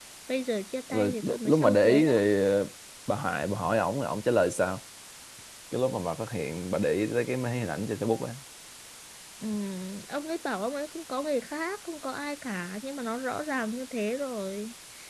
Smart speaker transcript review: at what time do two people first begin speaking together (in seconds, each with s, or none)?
0.9 s